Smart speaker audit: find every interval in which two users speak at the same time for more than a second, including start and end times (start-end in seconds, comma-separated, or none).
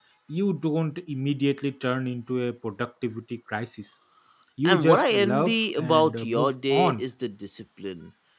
4.7-7.0